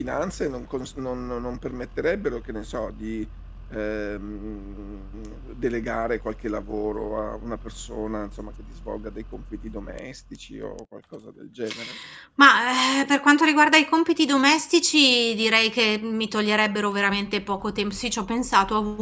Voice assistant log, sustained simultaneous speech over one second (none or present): none